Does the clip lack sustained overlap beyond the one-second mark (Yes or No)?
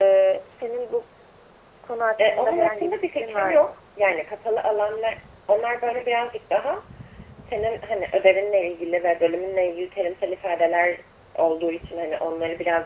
No